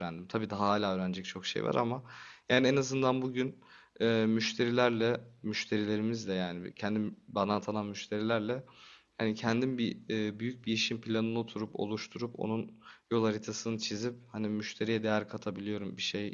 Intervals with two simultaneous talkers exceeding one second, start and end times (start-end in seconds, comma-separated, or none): none